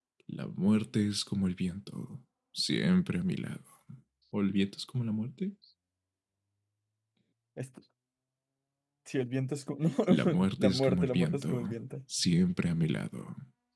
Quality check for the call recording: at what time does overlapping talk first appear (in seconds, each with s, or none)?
10.2 s